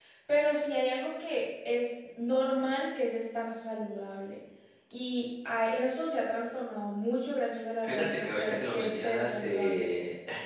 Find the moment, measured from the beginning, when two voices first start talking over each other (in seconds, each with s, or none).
7.8 s